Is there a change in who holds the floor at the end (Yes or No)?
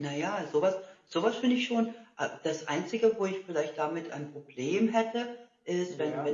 No